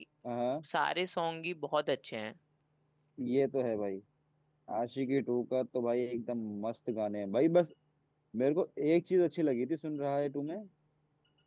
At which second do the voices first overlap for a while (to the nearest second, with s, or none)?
none